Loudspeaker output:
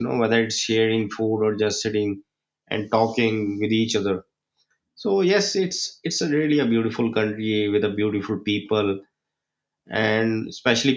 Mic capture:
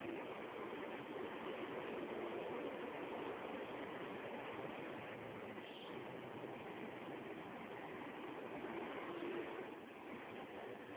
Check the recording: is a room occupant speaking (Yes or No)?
No